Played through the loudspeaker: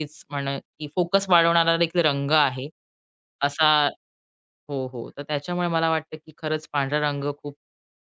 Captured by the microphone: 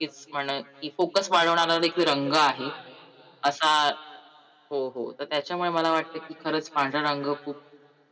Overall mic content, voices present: echo only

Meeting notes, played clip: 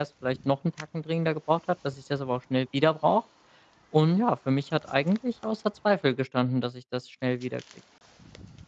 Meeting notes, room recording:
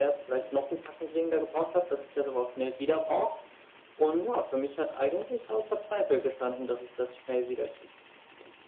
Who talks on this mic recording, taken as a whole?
echo only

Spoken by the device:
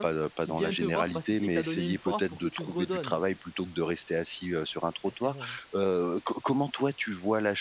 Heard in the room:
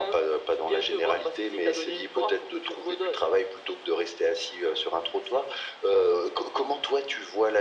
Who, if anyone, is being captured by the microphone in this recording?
echo only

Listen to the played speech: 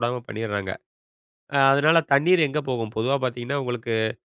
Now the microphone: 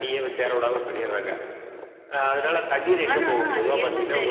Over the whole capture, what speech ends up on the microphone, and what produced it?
both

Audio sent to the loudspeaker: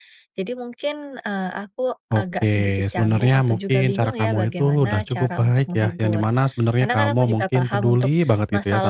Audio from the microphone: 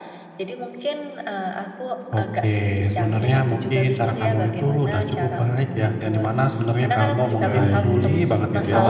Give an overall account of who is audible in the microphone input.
both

